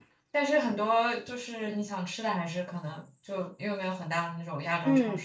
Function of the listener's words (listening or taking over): taking over